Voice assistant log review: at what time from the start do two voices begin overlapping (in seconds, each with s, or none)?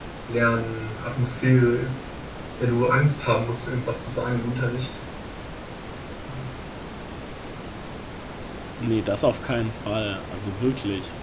none